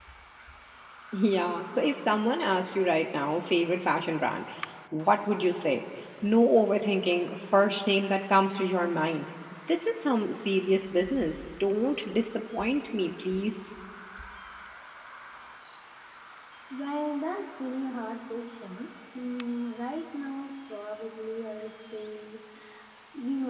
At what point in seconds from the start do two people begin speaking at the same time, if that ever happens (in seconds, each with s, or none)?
none